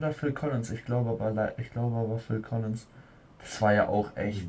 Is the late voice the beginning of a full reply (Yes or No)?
No